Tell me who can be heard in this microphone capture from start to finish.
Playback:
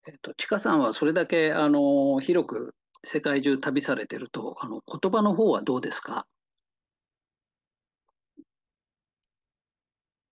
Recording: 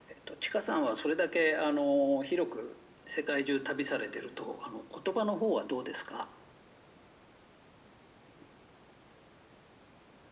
echo only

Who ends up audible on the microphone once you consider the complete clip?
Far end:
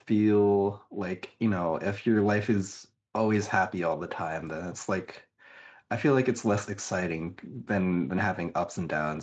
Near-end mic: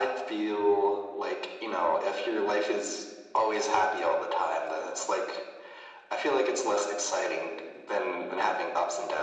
echo only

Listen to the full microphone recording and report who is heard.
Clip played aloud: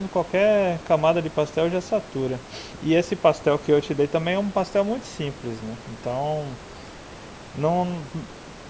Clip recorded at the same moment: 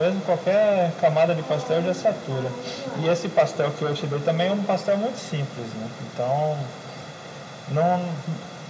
both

